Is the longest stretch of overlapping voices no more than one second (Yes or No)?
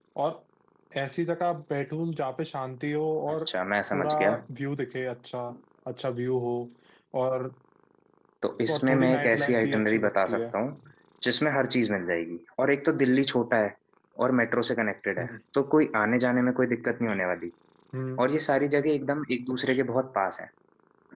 No